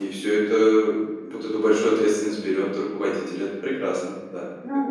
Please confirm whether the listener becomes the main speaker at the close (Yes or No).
Yes